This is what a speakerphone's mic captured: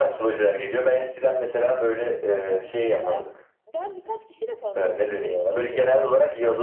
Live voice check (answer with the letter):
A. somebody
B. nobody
A